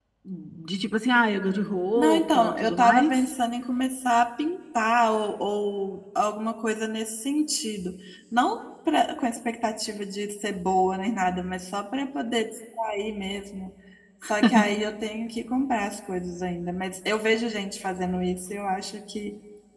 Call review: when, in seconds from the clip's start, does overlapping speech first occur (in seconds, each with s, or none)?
2.0 s